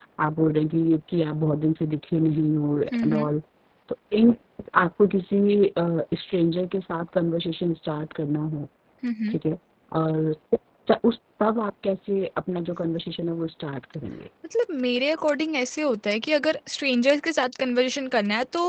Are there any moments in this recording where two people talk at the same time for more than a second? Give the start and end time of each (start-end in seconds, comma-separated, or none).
none